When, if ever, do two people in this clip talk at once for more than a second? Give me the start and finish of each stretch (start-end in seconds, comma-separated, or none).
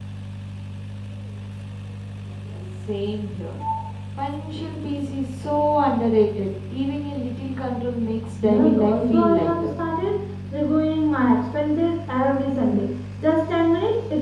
8.4-9.8